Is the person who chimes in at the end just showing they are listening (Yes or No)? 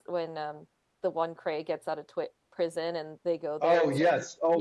No